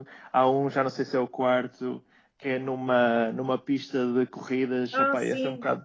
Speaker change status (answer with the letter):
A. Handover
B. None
B